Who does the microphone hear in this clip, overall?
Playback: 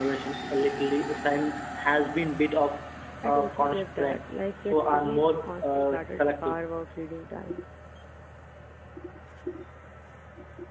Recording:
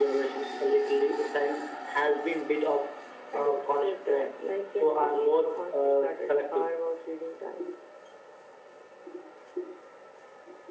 echo only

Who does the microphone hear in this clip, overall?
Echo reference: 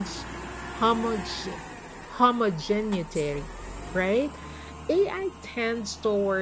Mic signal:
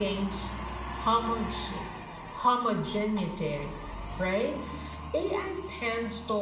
echo only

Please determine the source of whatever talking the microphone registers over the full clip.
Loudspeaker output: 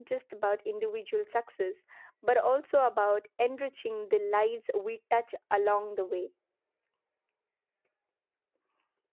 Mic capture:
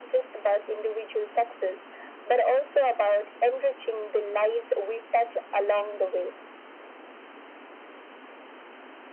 echo only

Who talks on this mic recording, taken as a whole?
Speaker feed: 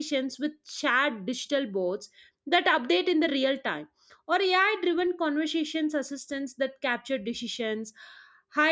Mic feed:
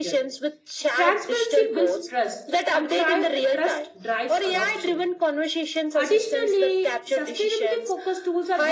both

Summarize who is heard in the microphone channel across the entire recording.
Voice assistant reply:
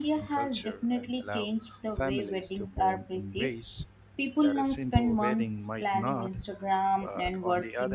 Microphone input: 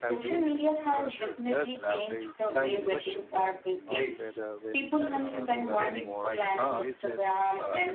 both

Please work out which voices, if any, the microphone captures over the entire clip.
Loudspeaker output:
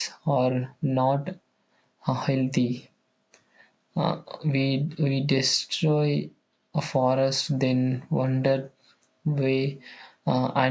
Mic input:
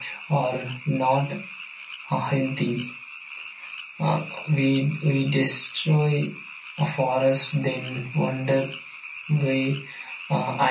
echo only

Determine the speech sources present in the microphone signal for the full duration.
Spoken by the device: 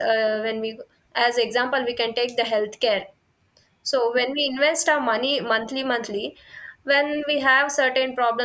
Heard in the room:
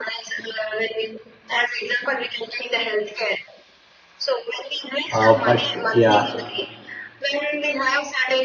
both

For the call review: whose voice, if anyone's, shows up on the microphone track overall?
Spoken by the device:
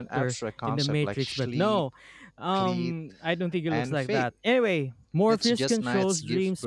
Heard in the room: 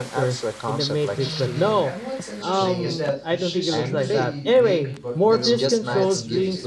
both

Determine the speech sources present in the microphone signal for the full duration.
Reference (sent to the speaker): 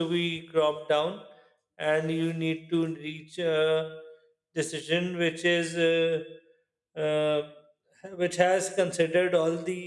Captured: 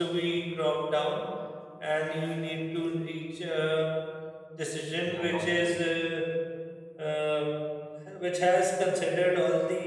both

